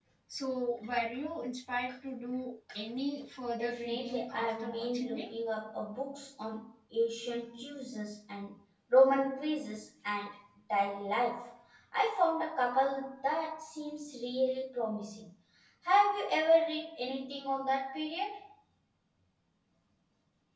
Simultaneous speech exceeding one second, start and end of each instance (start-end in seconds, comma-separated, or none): 3.6-5.3